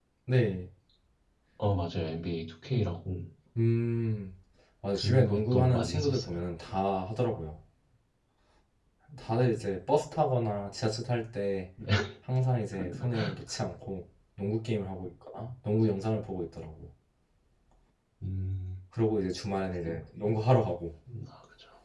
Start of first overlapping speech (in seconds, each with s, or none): 4.9 s